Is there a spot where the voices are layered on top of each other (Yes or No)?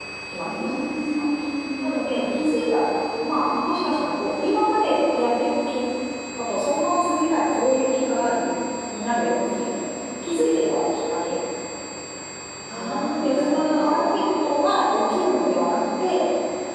Yes